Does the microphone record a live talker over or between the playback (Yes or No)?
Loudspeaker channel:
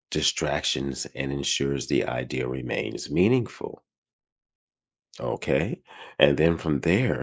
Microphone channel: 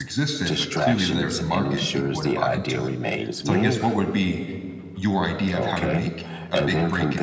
Yes